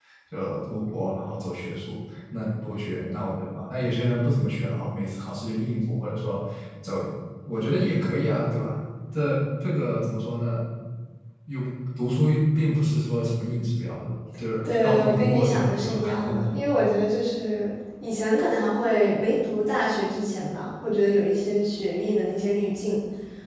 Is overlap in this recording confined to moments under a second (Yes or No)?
No